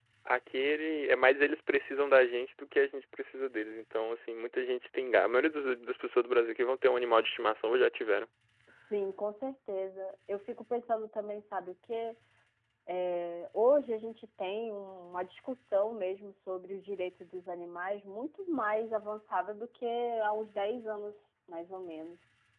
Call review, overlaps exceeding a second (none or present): none